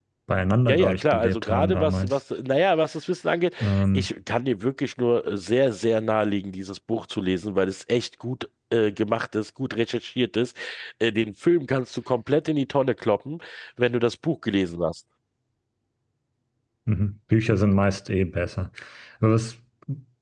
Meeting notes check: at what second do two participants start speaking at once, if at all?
0.7 s

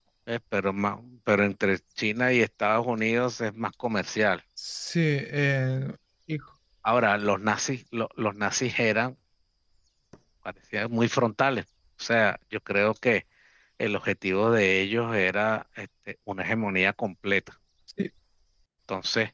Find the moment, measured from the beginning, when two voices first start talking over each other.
none

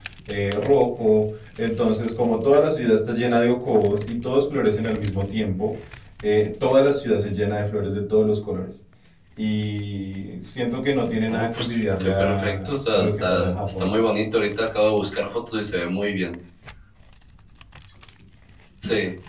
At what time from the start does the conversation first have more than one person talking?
11.3 s

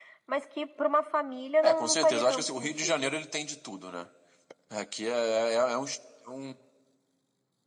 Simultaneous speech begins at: 1.6 s

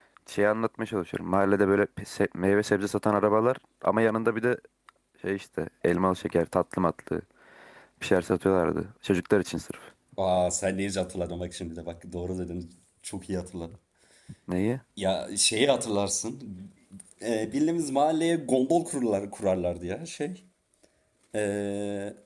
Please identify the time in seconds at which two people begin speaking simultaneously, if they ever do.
none

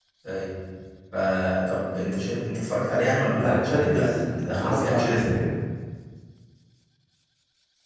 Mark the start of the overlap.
3.4 s

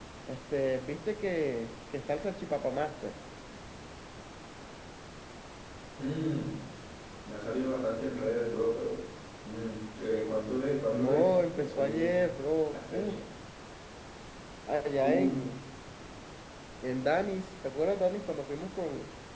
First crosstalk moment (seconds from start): 10.9 s

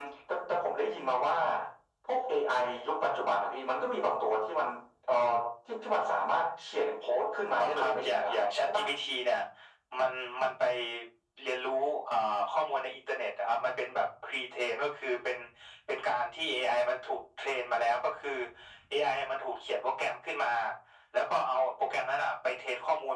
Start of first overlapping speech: 7.6 s

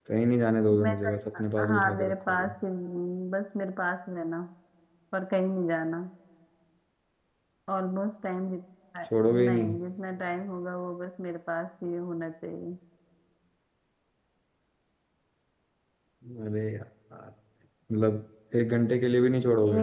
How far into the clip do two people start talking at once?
0.8 s

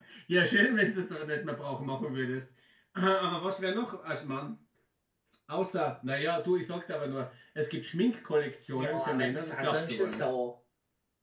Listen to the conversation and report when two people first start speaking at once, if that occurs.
8.8 s

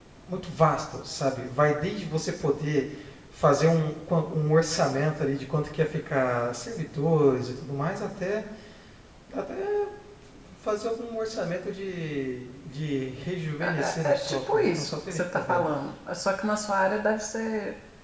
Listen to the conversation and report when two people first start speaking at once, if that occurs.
13.6 s

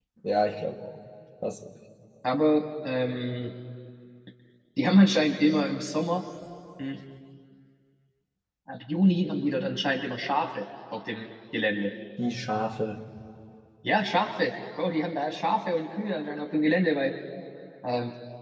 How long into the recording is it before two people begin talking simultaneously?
none

